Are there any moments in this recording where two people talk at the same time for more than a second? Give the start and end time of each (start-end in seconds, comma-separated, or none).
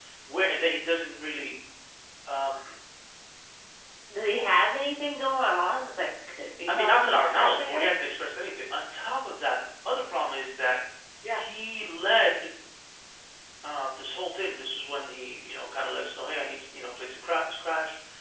6.7-7.9